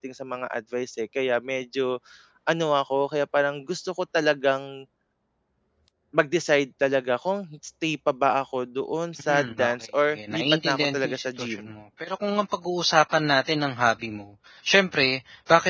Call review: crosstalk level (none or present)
present